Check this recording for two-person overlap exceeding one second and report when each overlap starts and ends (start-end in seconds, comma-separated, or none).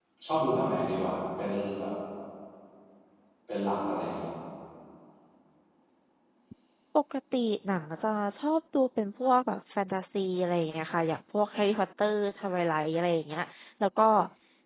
none